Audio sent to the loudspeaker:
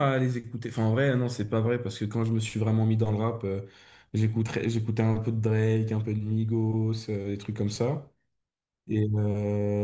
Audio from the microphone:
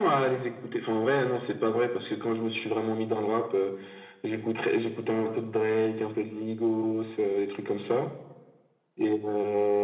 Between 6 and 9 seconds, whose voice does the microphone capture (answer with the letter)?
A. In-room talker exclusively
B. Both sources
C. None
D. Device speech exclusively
D